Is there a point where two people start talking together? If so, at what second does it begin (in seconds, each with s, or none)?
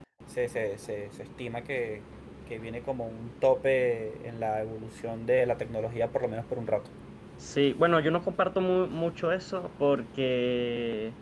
none